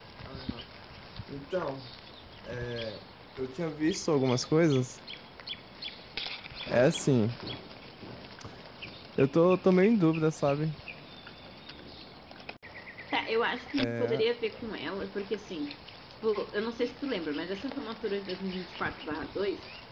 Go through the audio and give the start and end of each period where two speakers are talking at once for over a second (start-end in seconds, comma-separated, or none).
none